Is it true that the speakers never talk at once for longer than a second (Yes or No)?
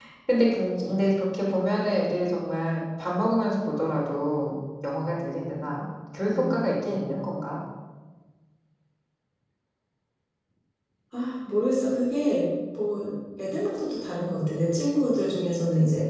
Yes